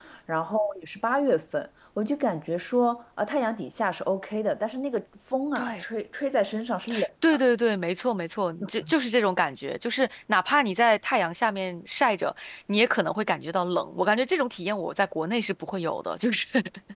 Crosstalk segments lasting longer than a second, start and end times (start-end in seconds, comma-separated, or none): none